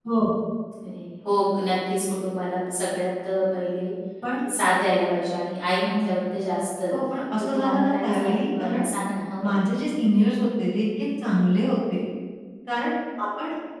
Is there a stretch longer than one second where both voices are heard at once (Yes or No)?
Yes